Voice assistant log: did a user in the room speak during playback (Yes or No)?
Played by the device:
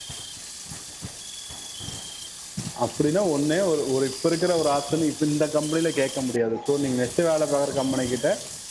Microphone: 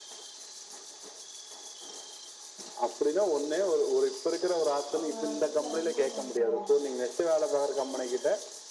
Yes